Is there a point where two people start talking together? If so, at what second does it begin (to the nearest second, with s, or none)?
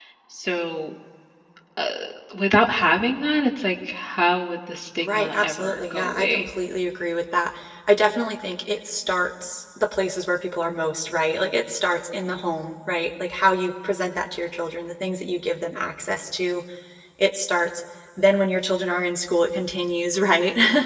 5 s